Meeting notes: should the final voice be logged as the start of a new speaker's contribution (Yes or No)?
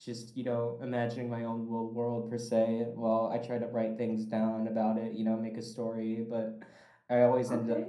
No